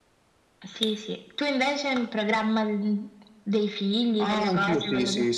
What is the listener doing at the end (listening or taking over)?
taking over